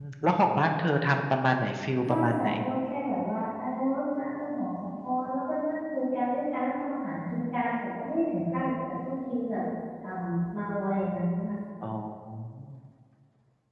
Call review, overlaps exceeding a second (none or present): none